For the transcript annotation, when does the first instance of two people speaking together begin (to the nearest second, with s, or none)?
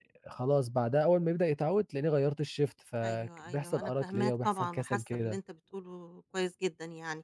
3 s